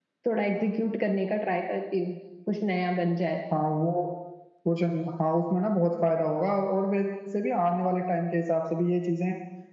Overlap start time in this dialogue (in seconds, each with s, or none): none